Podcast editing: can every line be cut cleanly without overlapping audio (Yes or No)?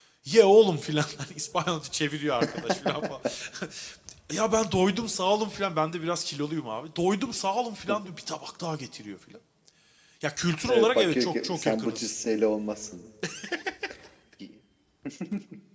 No